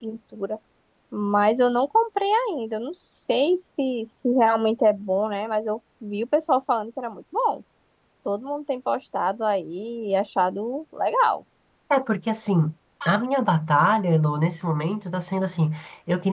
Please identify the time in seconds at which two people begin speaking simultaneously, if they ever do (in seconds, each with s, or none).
none